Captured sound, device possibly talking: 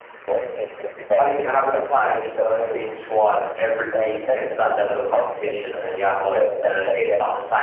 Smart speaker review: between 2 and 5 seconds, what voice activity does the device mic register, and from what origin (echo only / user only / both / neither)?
both